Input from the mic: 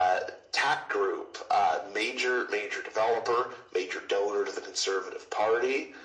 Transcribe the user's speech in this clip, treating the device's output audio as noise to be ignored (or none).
none